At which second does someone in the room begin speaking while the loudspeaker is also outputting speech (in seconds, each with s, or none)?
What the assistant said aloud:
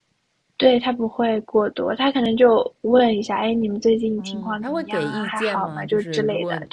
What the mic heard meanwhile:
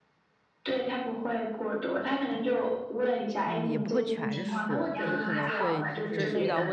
3.4 s